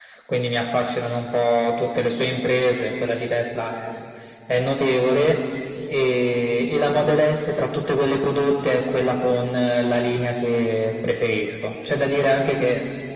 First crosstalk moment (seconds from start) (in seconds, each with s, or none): none